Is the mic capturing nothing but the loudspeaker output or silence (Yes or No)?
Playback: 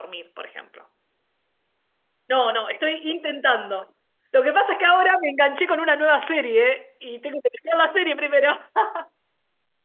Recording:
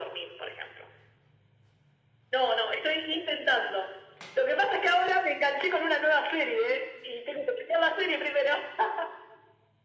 Yes